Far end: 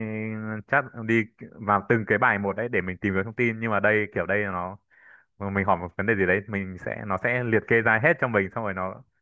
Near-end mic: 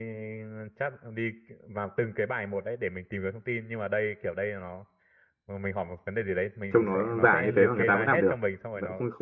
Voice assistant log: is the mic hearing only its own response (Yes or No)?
No